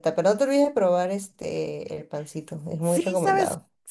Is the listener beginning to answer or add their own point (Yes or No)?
Yes